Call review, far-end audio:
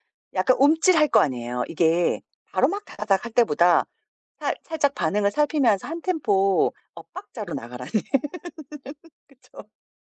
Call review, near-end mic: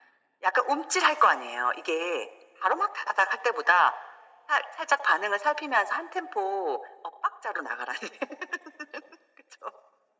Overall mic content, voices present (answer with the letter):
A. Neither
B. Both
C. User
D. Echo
D